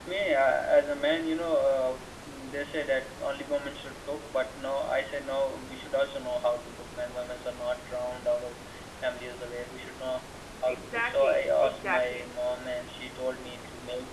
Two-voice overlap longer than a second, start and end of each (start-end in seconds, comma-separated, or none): 10.7-12.3